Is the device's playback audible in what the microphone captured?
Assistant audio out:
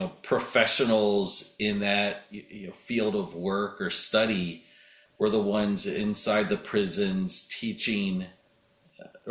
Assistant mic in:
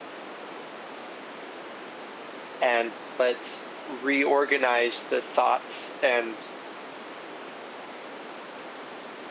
No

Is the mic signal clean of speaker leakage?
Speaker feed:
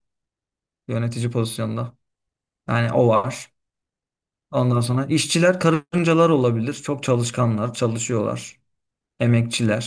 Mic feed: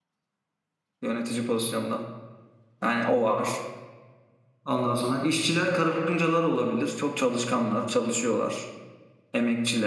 No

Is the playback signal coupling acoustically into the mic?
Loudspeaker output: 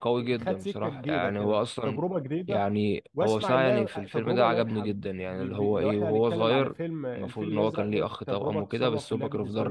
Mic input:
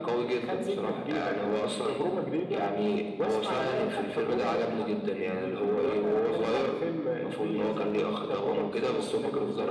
Yes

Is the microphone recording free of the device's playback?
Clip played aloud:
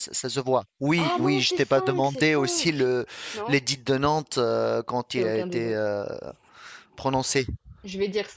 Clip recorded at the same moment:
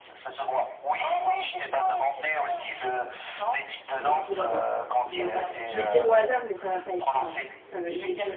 No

